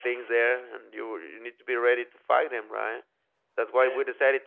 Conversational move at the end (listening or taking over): listening